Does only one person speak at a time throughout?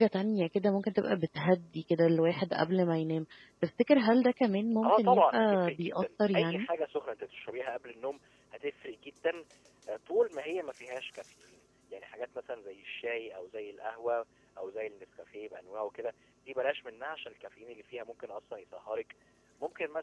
No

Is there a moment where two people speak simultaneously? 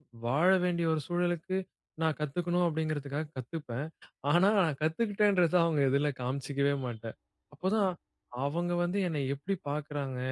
No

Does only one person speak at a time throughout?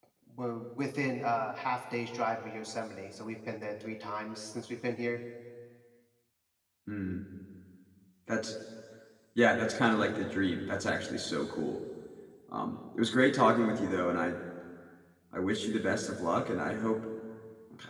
Yes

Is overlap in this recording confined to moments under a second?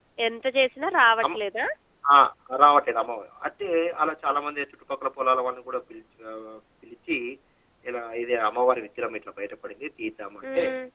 Yes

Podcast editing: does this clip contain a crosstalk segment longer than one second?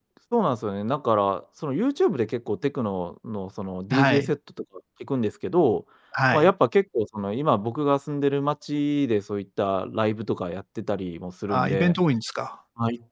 No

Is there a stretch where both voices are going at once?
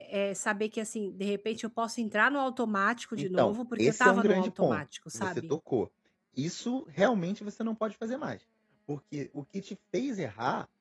Yes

